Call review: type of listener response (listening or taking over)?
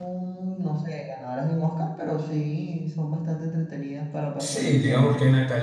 taking over